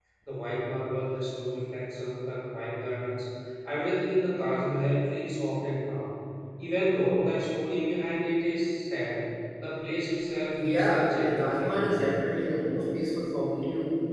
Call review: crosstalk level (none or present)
present